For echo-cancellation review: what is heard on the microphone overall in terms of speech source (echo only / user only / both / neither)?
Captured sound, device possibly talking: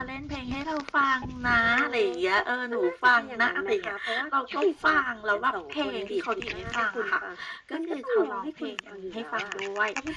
echo only